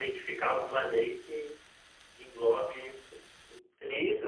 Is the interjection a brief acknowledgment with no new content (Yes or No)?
No